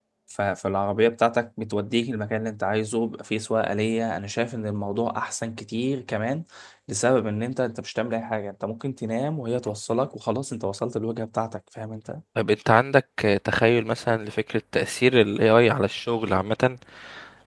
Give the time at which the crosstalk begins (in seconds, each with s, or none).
none